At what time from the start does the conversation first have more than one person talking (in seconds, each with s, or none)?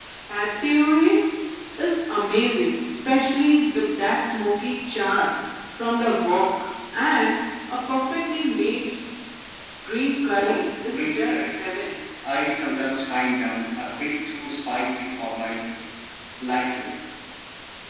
10.4 s